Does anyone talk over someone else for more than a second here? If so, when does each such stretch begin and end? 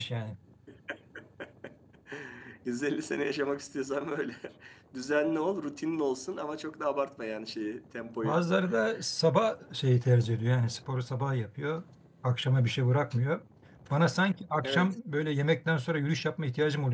none

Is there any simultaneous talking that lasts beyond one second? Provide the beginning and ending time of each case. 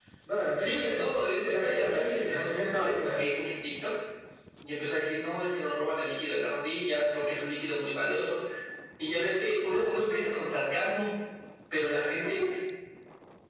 1.4-3.2

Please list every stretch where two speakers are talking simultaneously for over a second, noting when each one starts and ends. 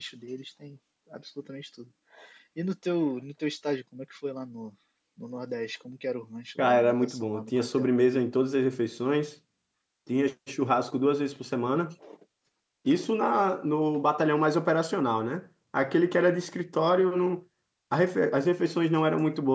6.6-7.9

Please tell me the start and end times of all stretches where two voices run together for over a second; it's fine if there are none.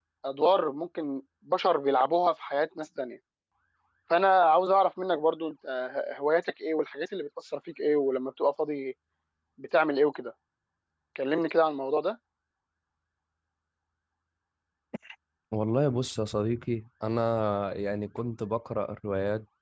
none

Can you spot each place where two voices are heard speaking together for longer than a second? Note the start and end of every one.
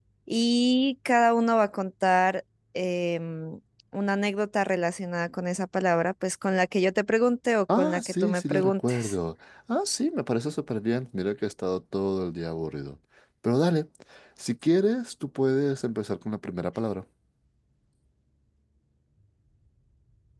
7.7-9.0

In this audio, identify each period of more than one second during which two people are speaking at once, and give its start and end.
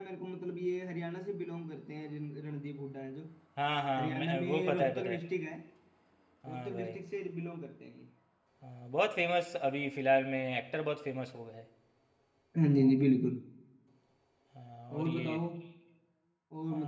4.0-5.2

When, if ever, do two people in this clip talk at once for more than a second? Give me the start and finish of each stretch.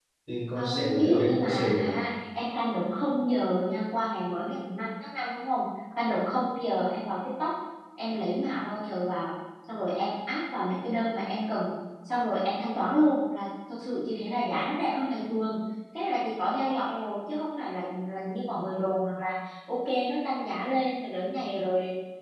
0.6-2.0

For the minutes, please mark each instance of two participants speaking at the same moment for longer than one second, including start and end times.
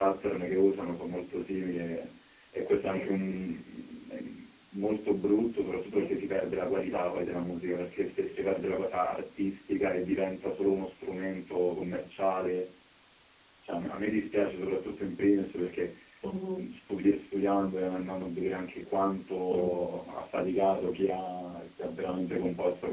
none

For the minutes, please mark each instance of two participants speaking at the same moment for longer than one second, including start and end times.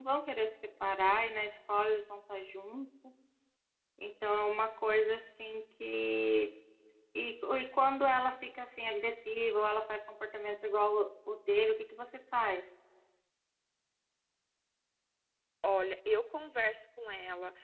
none

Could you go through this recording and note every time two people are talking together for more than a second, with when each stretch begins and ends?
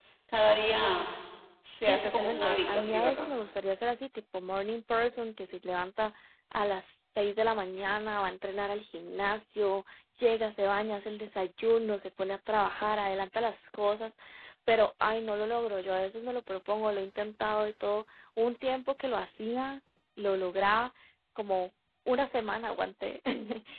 1.9-3.3

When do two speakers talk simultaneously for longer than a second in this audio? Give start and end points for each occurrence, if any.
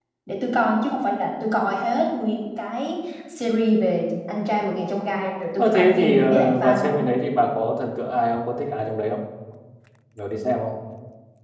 5.6-7.0

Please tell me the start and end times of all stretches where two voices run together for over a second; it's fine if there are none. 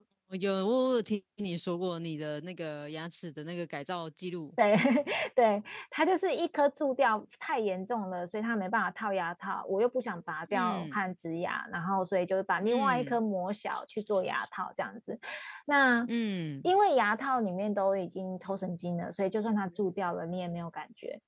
none

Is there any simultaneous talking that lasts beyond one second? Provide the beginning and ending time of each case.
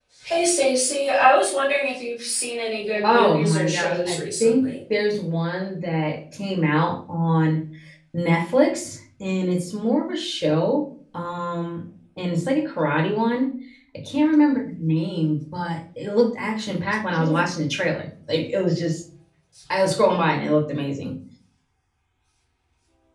3.0-4.7

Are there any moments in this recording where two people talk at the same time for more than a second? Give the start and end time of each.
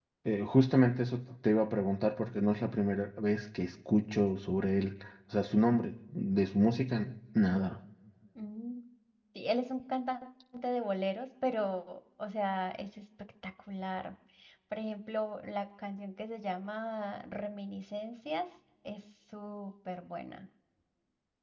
none

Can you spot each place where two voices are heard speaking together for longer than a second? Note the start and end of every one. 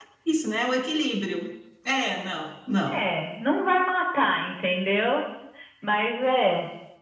none

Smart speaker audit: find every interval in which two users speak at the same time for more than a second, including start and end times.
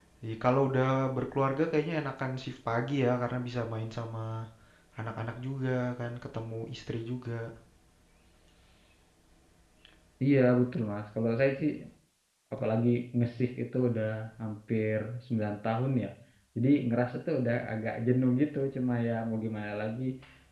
none

